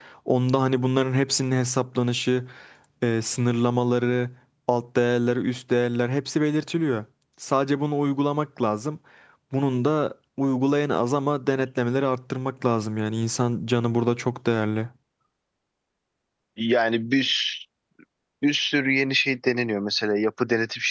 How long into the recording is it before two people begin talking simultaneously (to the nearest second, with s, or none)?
none